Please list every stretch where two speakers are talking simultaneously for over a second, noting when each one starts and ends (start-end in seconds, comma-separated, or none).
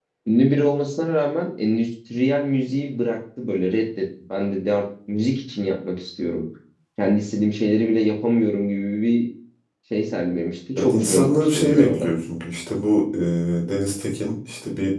10.8-12.1